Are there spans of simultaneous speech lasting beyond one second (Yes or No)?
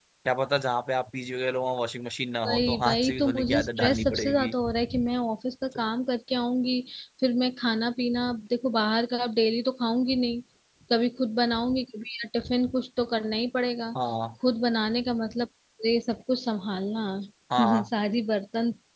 Yes